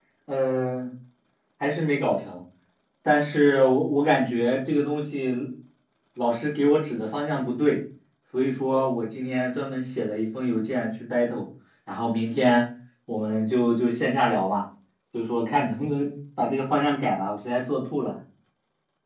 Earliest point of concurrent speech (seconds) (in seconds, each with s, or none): none